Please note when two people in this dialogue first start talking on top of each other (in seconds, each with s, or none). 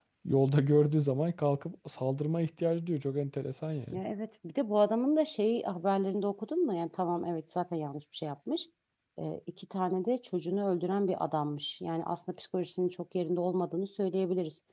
none